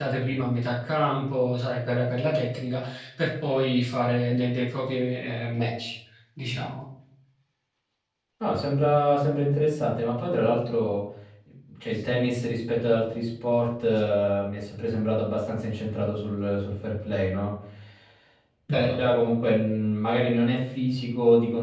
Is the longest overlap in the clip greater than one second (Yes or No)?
No